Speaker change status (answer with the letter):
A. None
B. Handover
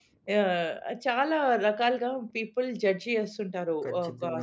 A